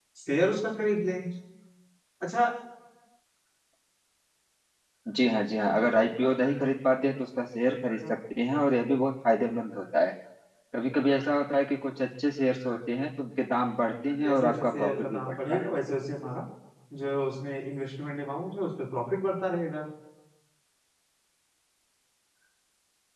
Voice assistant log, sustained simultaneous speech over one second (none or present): present